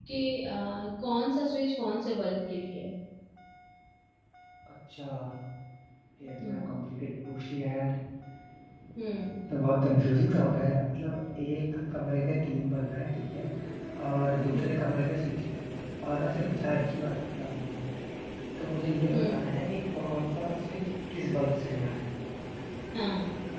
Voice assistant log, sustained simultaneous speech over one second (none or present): none